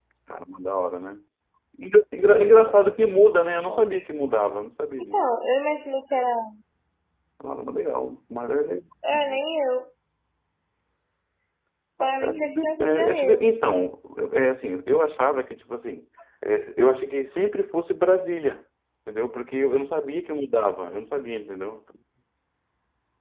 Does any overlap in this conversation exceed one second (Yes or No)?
Yes